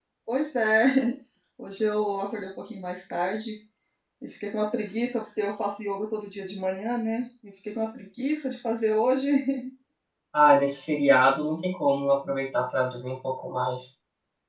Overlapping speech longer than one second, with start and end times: none

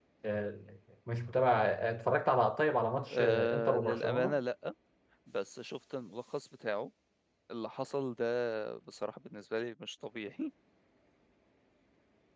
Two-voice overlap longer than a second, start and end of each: 3.1-4.4

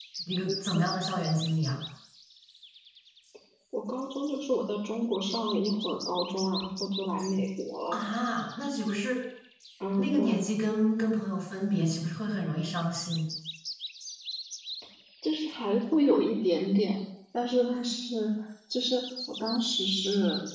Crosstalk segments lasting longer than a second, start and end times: none

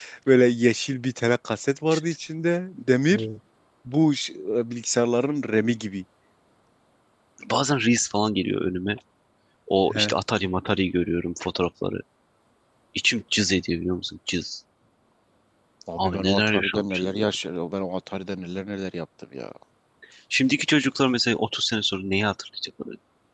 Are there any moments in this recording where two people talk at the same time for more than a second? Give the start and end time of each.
16.0-17.2

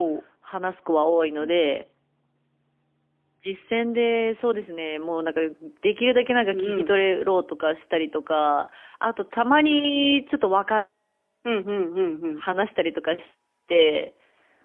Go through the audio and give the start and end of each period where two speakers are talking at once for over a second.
none

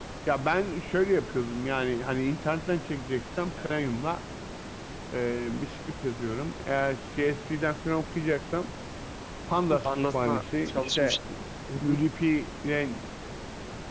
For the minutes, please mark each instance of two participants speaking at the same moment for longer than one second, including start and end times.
9.8-11.2

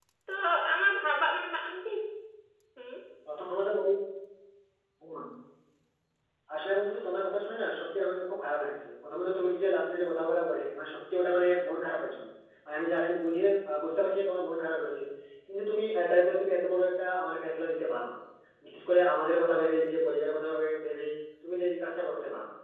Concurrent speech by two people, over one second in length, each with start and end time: none

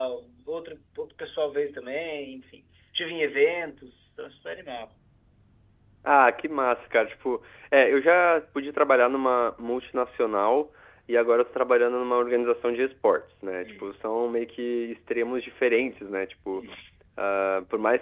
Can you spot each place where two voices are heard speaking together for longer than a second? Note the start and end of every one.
none

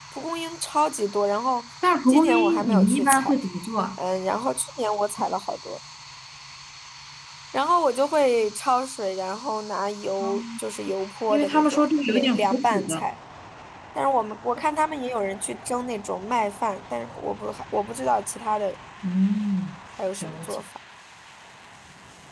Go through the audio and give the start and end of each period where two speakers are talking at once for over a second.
2.1-3.4, 11.3-13.0

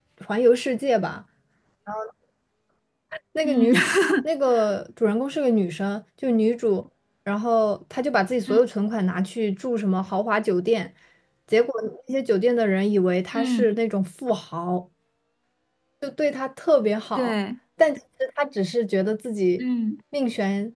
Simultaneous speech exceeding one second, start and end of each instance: none

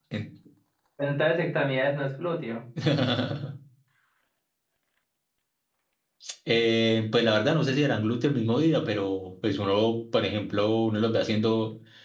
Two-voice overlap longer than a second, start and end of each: none

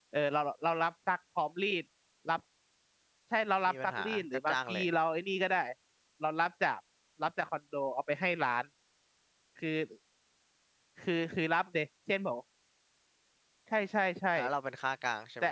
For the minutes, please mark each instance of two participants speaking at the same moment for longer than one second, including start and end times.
3.7-4.9

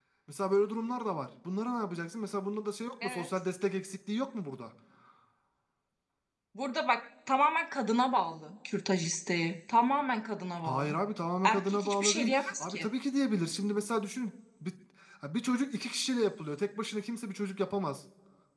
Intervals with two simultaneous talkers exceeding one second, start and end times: 11.4-12.9

